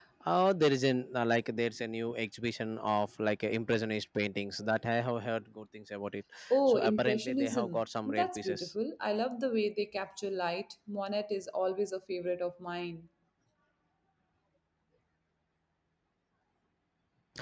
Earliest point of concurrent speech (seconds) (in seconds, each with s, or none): 6.7 s